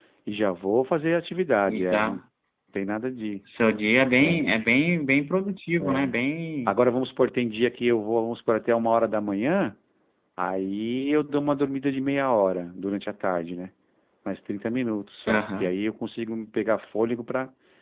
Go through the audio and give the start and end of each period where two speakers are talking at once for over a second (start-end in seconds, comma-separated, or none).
none